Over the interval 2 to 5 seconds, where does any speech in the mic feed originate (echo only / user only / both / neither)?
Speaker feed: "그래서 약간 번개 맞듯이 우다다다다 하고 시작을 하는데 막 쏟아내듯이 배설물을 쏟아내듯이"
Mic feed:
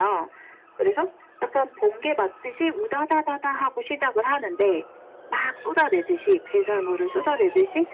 echo only